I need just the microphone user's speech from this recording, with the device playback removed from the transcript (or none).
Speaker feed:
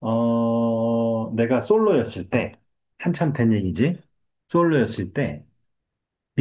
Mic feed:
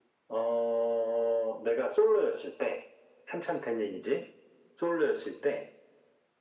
none